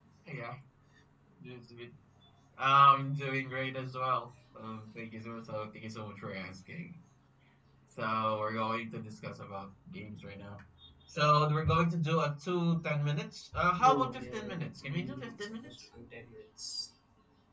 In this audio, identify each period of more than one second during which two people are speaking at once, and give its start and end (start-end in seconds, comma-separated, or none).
13.8-15.7